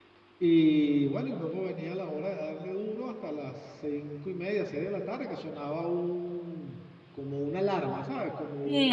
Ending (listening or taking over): taking over